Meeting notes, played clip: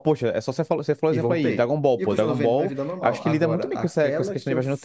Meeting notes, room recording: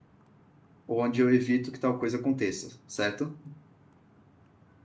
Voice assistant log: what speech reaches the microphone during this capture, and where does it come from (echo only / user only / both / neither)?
user only